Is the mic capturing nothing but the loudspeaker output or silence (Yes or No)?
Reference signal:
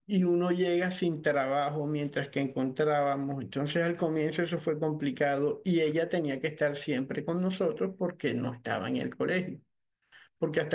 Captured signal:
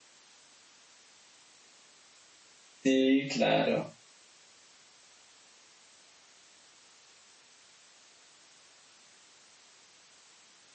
No